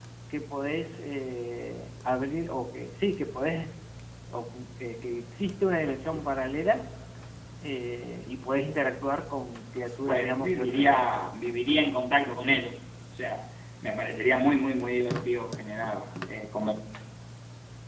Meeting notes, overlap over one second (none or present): present